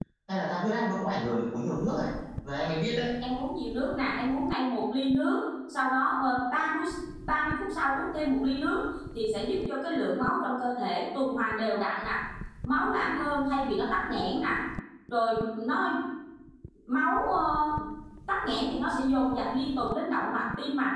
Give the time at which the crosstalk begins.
none

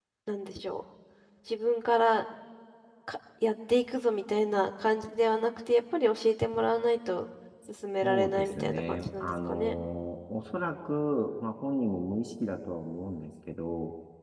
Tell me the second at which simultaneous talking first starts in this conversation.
8 s

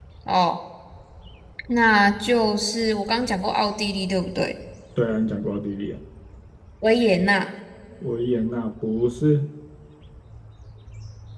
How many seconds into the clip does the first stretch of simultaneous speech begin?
none

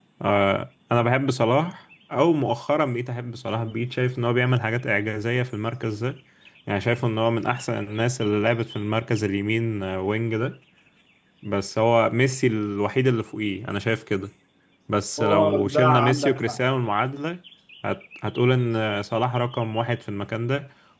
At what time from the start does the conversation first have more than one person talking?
15 s

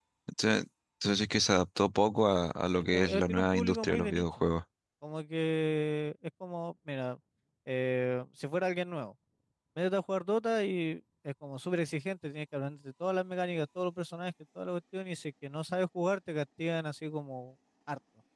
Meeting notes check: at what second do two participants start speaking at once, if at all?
3 s

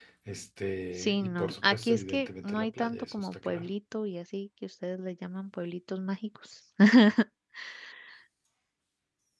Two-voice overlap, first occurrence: 1 s

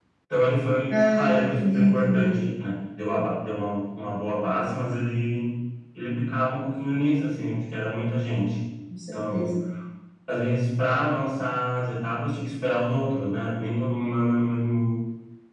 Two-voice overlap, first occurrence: 1 s

